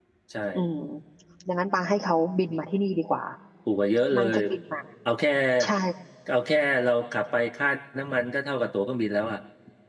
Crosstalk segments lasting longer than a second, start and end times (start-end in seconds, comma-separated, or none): none